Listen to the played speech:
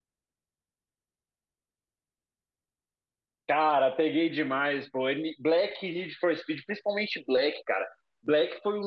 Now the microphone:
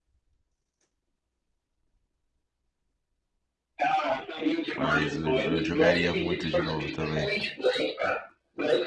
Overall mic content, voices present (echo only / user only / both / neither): both